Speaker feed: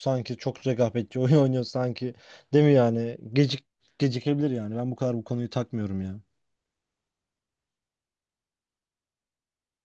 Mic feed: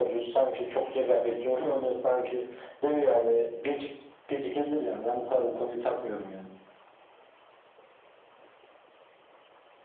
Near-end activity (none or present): none